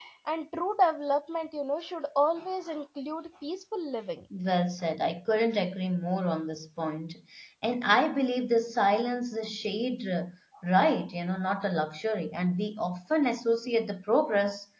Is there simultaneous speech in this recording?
No

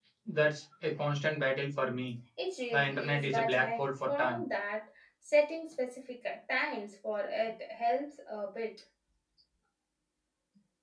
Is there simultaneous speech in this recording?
Yes, from 2.7 s

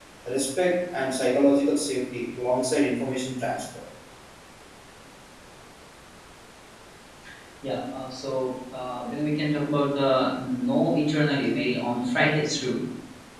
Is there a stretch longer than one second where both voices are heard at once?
No

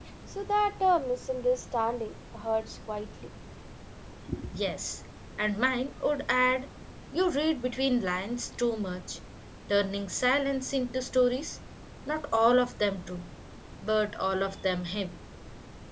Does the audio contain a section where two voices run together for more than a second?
No

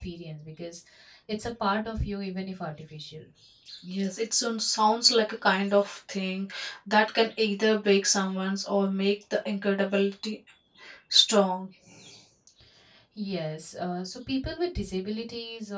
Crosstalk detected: No

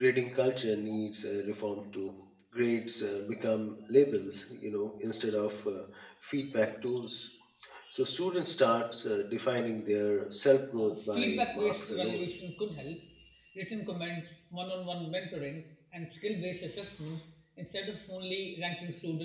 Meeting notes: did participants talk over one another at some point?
Yes, from 10.8 s

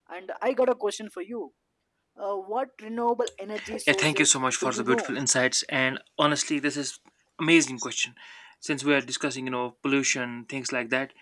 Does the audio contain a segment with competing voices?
Yes, from 3.9 s

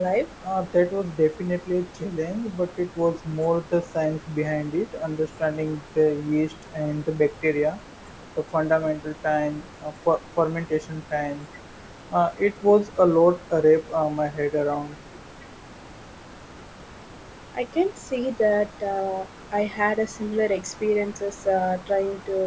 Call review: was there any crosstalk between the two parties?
No

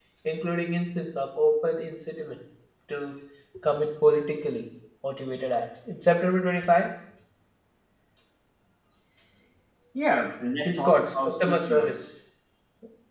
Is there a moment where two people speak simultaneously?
Yes, from 10.7 s

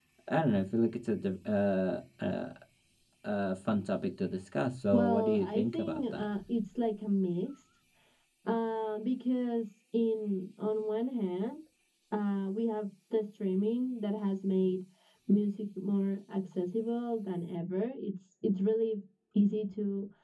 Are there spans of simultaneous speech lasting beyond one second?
Yes, from 4.9 s

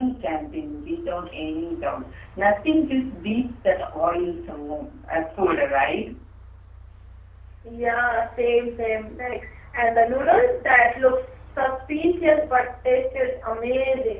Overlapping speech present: No

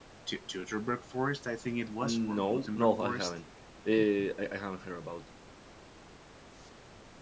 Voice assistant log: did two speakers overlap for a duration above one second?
Yes, from 2.0 s

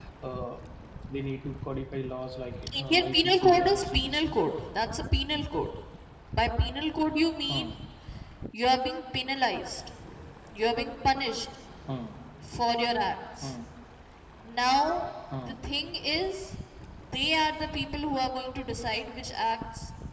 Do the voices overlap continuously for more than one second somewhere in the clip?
Yes, from 2.7 s

